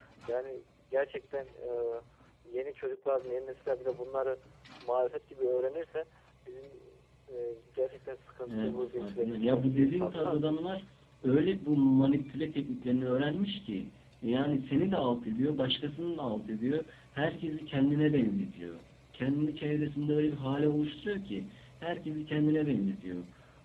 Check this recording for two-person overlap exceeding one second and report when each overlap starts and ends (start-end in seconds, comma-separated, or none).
8.4-10.6